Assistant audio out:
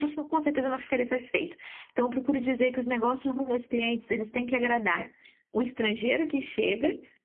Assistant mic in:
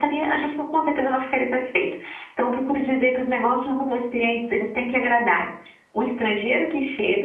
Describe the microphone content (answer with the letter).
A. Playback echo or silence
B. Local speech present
A